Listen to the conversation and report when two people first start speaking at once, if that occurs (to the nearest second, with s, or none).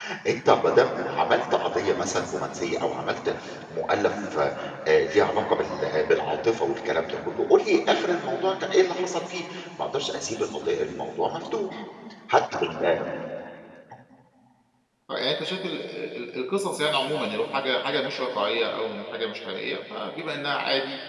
none